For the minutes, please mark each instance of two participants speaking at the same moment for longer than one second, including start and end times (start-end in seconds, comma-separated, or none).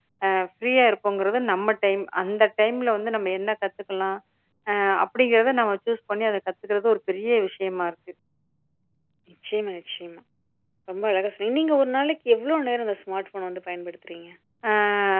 none